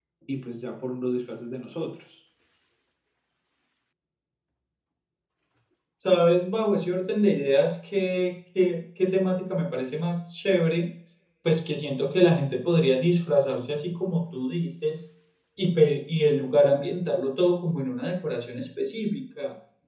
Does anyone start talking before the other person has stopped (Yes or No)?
No